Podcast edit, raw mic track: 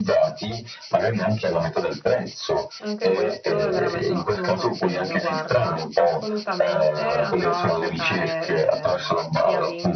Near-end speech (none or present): present